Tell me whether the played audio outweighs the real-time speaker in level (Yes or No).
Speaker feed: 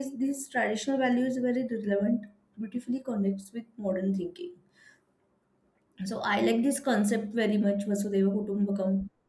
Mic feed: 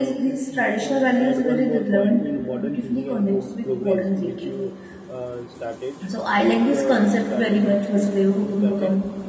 Yes